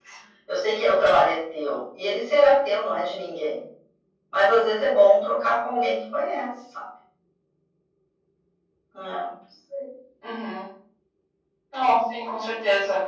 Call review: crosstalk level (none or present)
none